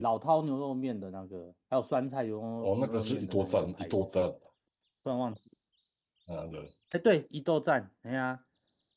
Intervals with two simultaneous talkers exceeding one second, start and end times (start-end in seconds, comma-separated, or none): 2.6-4.0